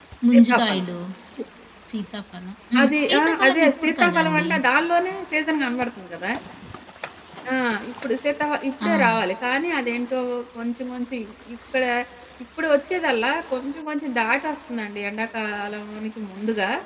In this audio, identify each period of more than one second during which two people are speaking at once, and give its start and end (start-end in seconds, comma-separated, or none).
2.8-4.5